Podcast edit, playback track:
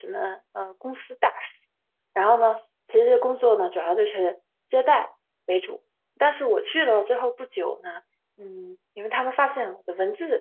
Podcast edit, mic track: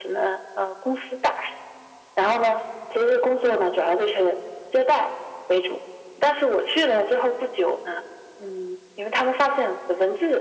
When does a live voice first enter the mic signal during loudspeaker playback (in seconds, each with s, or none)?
none